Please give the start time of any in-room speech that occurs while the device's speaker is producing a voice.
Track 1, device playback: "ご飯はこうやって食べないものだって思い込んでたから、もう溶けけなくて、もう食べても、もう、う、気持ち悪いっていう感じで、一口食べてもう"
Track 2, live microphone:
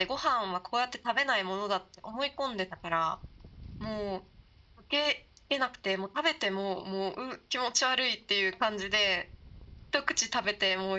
none

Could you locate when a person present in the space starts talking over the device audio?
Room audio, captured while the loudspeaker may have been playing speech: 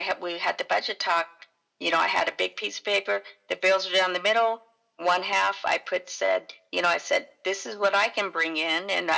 none

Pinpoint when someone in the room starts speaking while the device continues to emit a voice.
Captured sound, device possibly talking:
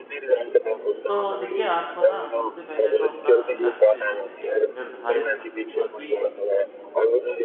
1 s

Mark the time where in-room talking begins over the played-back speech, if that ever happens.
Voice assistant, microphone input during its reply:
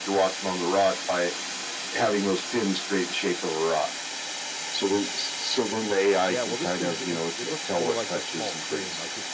6 s

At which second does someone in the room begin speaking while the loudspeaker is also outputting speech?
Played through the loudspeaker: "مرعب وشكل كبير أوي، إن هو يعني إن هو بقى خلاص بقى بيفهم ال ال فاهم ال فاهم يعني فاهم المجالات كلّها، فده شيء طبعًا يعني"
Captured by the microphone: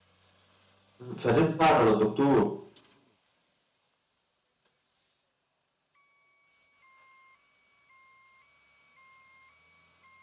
1 s

